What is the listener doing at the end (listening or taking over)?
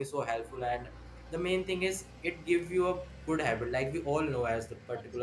listening